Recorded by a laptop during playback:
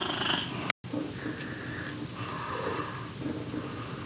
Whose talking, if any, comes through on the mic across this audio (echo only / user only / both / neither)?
neither